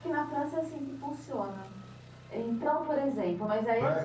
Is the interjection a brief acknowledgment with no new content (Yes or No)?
No